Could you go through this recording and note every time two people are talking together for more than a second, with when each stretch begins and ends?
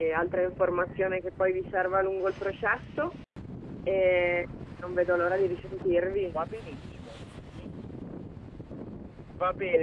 none

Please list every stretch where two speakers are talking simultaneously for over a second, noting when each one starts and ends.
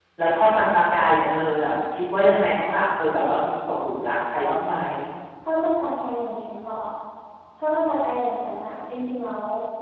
none

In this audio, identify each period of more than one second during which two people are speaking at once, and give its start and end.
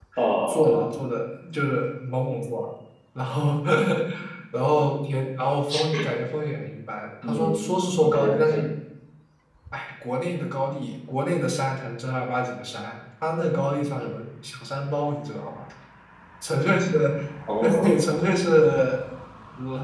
7.3-8.7

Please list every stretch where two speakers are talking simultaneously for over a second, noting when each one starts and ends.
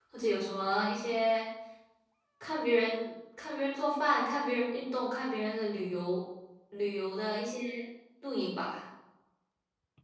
none

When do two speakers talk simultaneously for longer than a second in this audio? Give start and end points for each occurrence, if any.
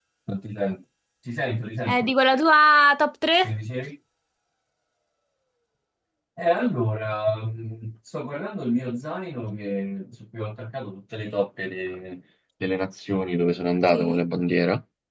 none

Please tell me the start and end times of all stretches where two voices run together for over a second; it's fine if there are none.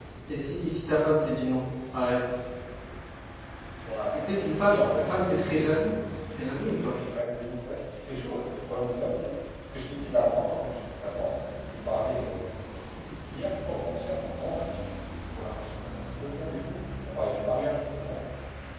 4.3-5.7

